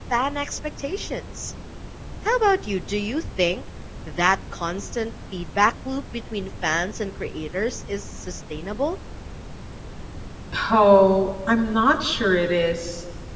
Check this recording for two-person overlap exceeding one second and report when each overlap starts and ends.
none

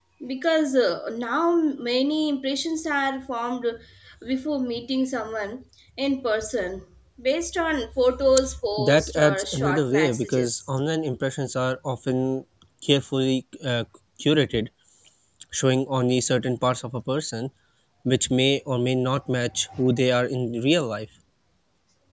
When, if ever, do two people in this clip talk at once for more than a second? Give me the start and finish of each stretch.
8.8-10.6

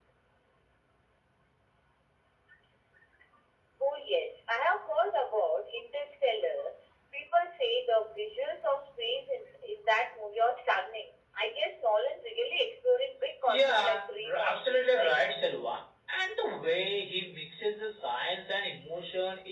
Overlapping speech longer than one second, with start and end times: 13.5-15.2

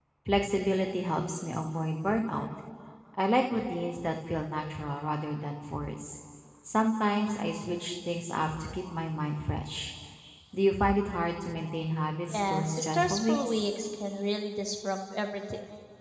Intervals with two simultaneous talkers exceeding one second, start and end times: 12.3-13.7

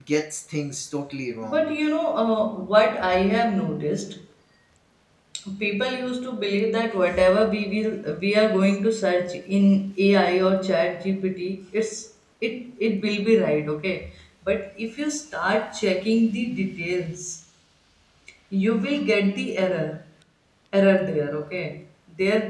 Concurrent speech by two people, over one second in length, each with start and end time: none

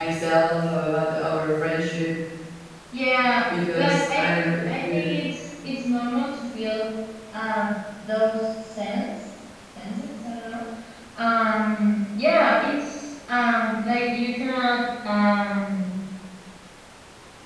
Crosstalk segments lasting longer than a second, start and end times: 3.8-5.1

